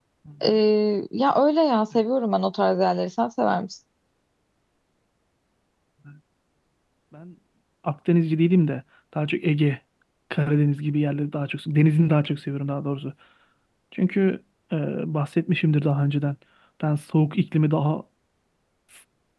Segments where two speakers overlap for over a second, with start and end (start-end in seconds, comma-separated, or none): none